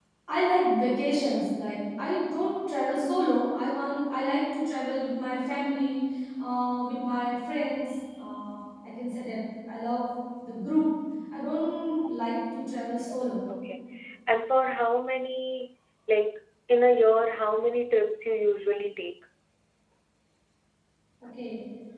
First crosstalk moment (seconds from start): none

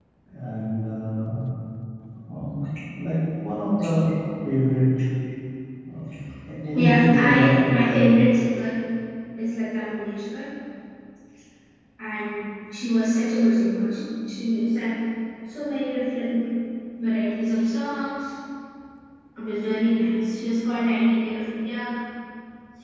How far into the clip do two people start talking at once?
6.7 s

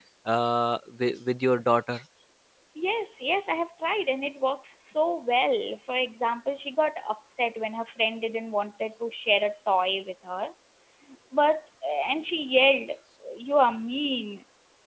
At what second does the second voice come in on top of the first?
none

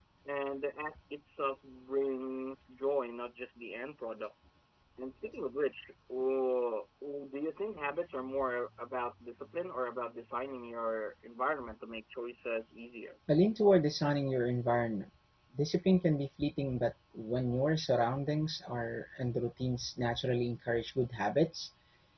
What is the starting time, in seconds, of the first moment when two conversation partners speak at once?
none

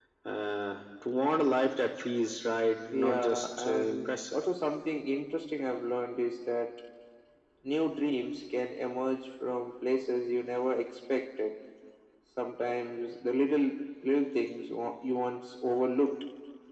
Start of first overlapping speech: 2.9 s

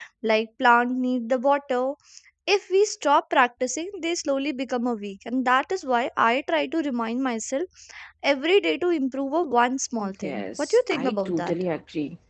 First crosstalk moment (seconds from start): 10.0 s

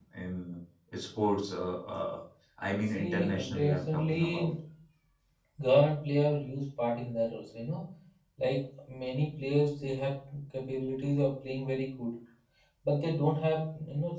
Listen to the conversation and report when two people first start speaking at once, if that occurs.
3.0 s

